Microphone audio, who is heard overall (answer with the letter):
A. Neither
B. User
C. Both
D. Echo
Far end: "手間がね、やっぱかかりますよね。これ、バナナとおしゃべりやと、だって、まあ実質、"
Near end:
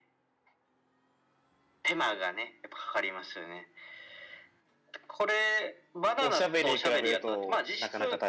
C